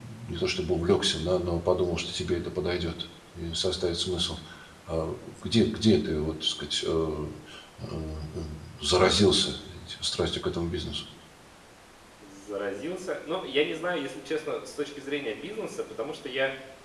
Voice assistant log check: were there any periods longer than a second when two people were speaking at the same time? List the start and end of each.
none

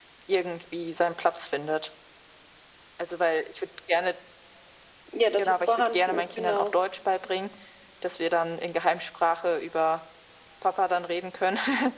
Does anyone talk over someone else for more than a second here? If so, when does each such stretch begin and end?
5.4-6.7

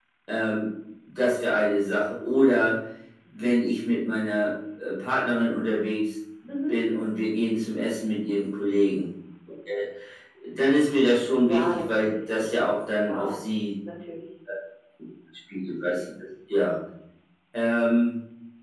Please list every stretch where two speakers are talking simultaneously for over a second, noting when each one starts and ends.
11.3-13.5

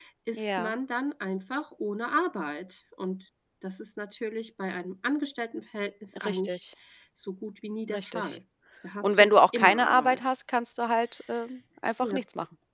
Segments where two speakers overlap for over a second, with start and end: 9.0-10.3

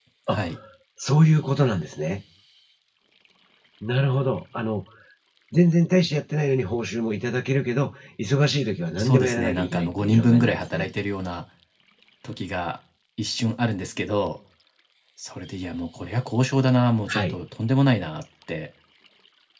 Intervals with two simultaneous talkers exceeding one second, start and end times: 9.0-10.9

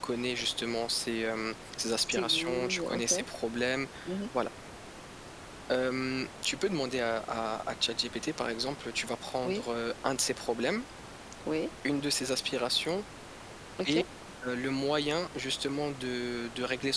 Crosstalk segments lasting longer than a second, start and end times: 2.0-3.2

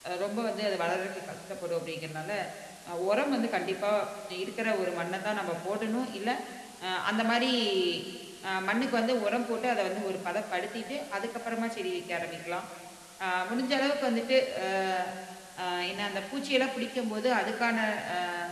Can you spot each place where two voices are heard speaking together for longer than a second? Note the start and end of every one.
none

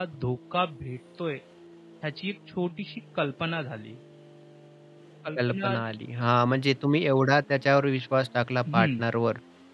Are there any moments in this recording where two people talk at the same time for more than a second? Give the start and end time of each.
none

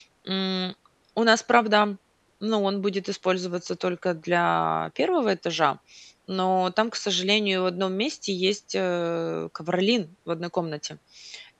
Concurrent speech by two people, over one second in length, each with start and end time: none

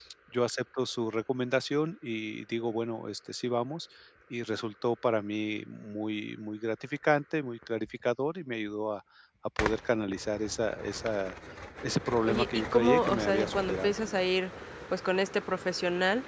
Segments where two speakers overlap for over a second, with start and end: 12.2-13.9

